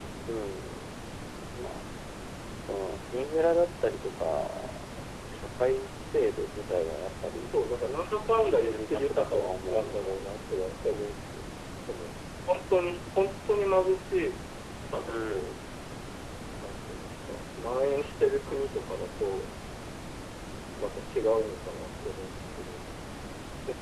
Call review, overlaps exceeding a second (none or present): present